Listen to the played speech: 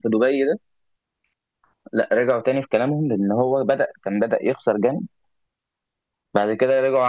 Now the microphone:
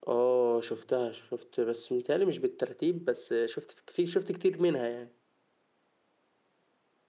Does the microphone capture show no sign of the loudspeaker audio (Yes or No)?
Yes